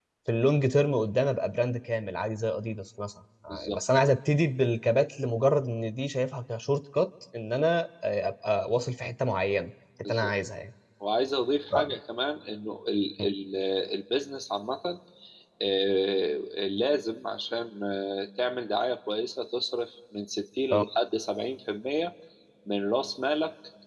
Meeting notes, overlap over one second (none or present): none